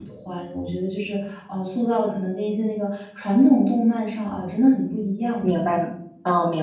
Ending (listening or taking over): taking over